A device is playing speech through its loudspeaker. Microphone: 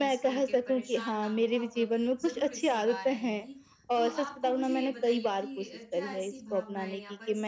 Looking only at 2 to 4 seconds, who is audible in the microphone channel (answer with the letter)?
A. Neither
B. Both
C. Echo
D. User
B